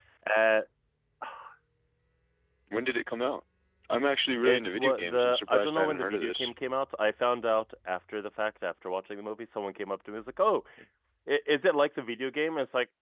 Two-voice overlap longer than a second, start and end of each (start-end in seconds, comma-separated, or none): 4.4-6.5